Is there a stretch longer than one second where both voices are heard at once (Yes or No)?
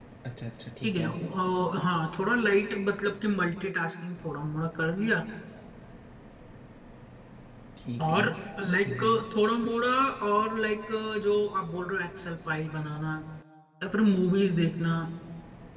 No